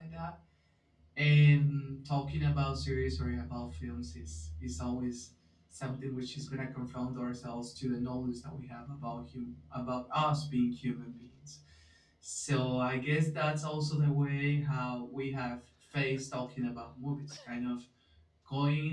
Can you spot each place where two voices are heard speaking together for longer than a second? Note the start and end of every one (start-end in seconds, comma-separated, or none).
none